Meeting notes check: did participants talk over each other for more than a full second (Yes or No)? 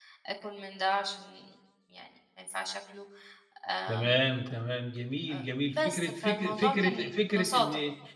Yes